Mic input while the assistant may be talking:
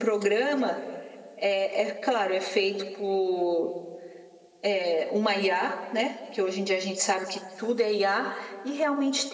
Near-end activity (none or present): none